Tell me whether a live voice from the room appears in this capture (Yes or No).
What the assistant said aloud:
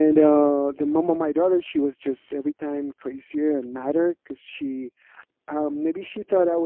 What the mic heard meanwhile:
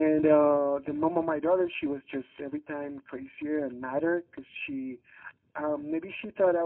No